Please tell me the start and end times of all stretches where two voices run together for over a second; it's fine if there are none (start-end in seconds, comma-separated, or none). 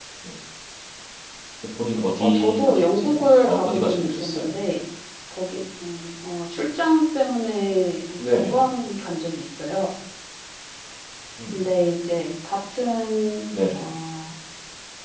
2.2-4.6